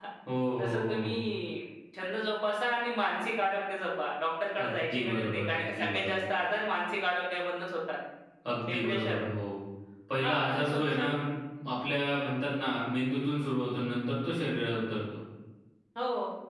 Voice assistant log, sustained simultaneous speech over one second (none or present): present